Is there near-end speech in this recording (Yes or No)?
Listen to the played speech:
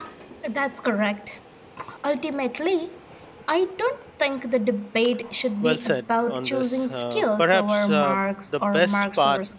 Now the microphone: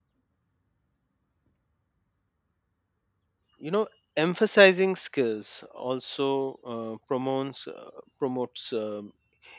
Yes